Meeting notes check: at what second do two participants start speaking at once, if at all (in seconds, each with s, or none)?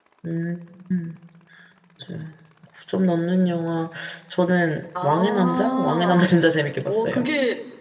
5.0 s